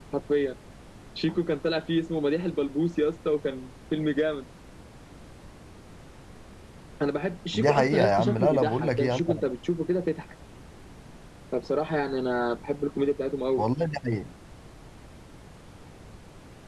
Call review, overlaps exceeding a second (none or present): present